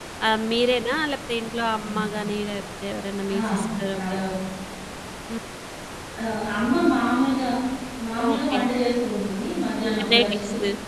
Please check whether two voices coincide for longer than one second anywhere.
No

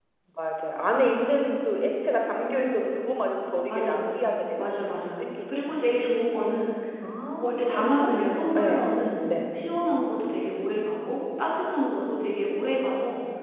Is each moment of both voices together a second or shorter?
No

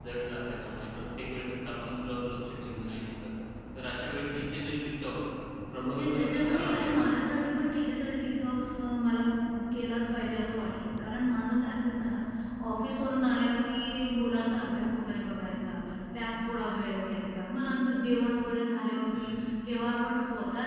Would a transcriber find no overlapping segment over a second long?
No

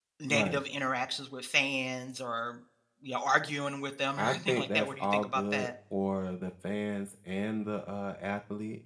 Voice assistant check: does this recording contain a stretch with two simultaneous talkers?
Yes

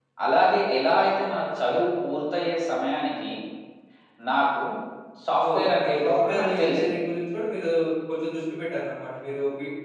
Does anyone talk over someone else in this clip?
Yes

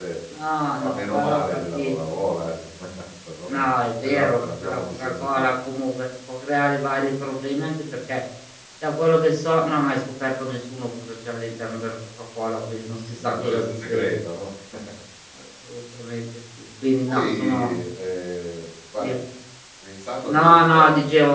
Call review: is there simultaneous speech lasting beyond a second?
Yes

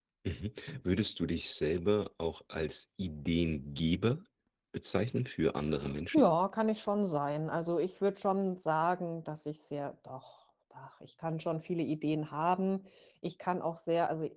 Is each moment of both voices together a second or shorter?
Yes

